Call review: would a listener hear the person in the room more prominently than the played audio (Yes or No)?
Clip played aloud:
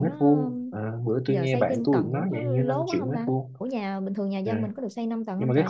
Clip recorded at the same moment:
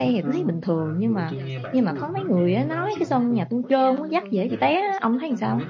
Yes